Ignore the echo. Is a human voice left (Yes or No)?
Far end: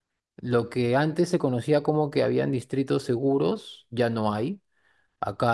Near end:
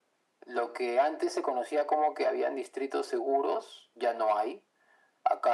No